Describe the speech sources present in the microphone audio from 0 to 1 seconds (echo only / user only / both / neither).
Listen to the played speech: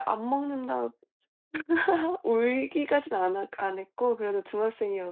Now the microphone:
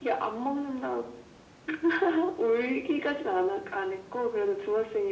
echo only